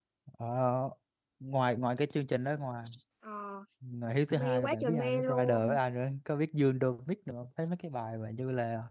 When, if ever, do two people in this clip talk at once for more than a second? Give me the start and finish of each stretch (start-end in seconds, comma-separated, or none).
4.4-5.8